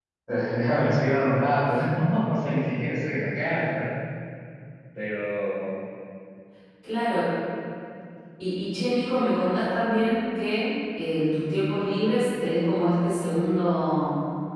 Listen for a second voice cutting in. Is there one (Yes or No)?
No